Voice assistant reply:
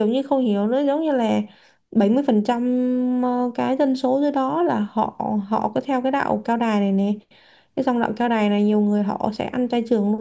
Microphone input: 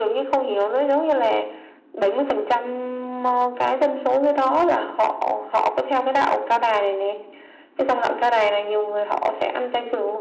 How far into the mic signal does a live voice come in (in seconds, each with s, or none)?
none